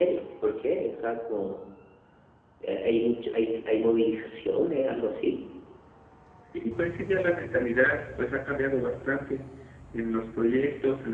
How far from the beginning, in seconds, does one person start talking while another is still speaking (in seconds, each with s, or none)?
none